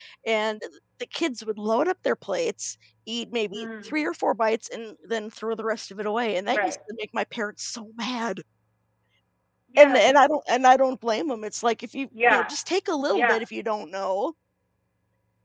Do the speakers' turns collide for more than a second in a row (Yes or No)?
No